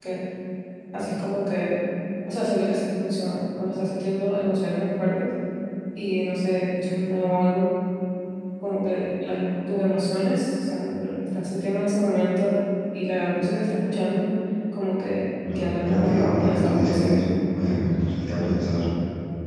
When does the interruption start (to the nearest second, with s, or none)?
16 s